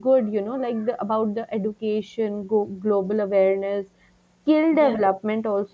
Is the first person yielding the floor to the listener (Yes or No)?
No